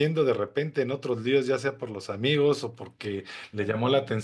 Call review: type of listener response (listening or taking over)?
listening